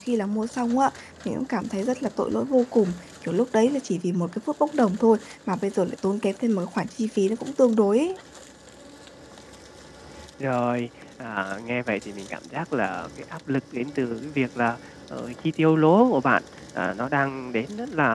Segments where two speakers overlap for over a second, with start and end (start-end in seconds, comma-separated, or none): none